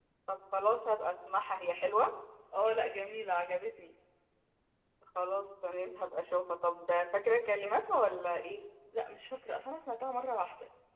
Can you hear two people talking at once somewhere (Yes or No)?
No